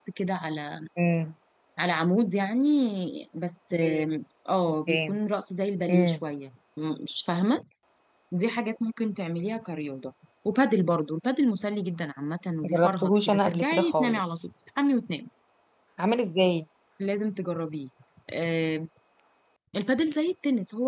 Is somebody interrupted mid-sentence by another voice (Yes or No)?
Yes